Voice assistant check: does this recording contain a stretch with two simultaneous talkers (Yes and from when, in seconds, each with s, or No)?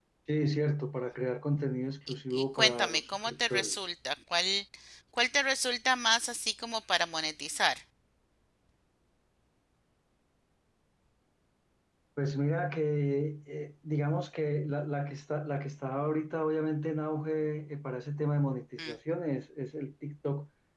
Yes, from 2.3 s